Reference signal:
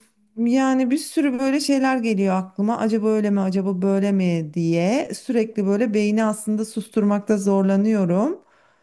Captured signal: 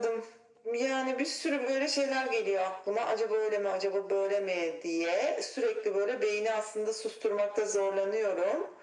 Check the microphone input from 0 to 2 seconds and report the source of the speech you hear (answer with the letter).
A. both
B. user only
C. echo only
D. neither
C